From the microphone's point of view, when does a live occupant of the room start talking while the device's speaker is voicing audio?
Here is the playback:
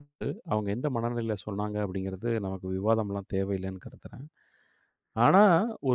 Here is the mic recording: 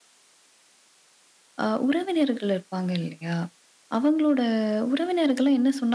2 s

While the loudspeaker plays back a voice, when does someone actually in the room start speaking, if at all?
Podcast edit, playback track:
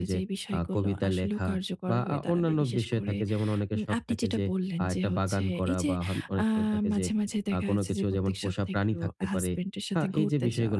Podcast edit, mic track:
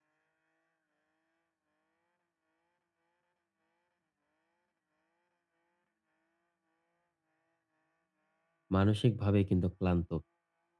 9 s

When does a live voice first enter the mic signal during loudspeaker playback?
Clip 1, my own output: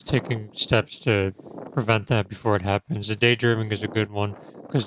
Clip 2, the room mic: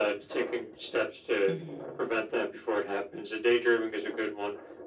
1 s

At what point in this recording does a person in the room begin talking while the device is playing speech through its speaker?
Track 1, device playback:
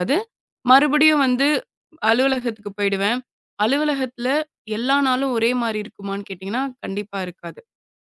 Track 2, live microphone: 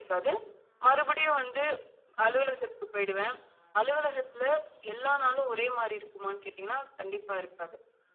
none

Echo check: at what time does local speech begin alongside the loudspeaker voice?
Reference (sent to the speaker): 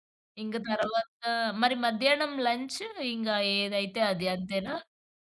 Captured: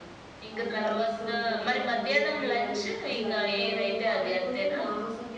1 s

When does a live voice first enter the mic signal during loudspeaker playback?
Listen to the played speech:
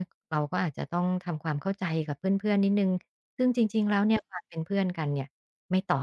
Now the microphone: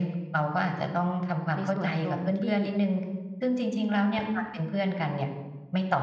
2 s

